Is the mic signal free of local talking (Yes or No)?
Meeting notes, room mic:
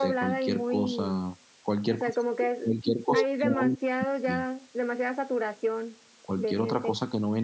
No